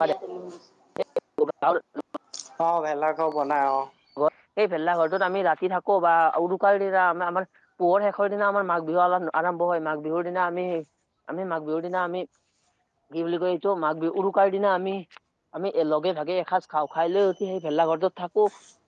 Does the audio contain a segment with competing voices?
No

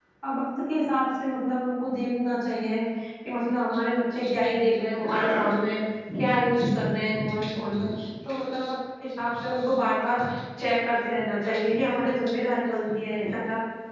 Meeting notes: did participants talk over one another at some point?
No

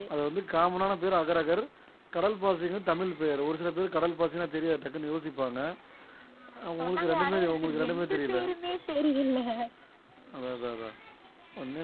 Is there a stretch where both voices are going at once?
Yes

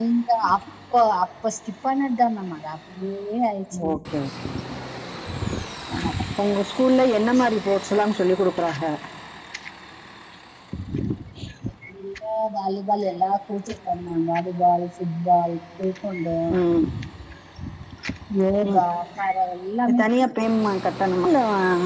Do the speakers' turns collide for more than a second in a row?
No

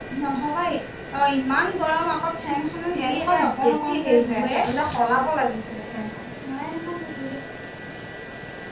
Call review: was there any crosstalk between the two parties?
Yes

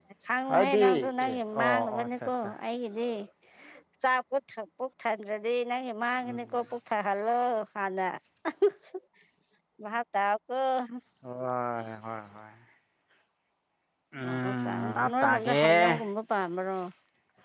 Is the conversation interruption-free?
No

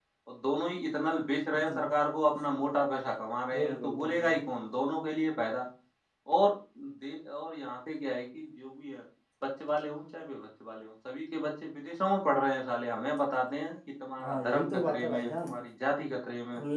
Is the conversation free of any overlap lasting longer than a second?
No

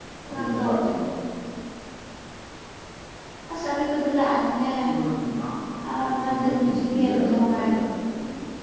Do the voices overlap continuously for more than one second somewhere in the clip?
Yes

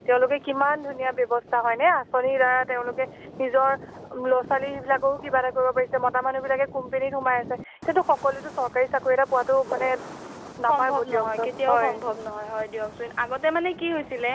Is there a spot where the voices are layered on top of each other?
Yes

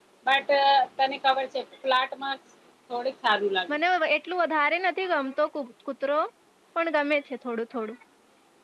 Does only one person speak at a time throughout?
Yes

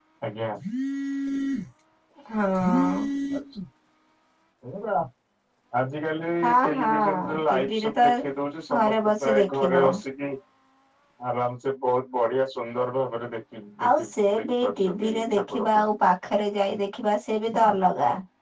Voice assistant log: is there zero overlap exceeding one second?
No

